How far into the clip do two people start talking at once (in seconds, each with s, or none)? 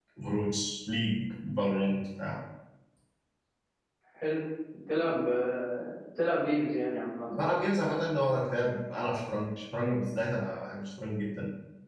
none